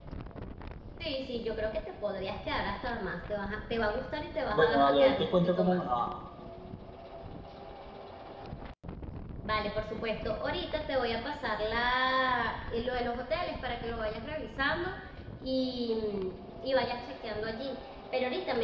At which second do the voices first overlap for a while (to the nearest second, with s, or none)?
5 s